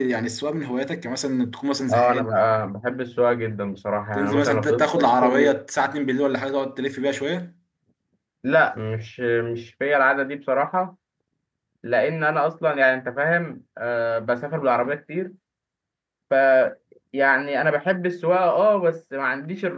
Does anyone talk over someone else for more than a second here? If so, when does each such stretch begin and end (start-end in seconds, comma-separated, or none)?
4.1-5.5